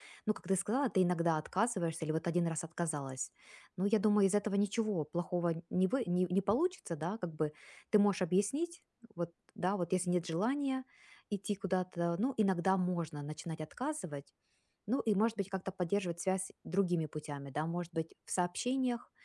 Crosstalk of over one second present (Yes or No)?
No